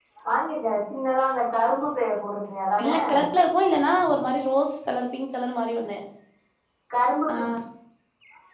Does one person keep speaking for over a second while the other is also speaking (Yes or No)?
No